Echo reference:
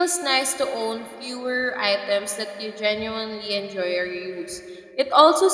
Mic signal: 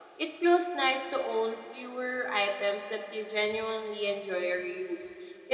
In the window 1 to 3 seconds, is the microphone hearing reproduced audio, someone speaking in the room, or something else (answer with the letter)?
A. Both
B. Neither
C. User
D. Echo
D